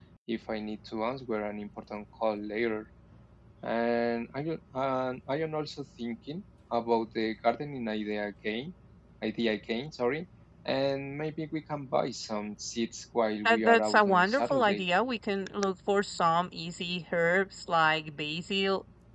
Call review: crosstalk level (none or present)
present